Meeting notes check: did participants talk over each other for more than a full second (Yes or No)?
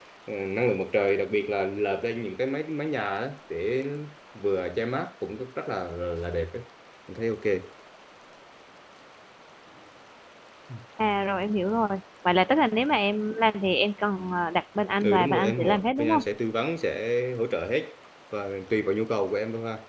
Yes